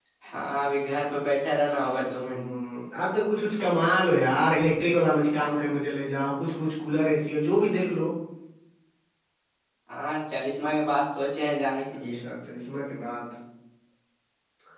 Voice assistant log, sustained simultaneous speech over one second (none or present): none